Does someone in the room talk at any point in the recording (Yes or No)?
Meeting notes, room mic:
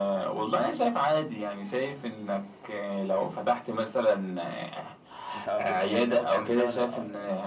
Yes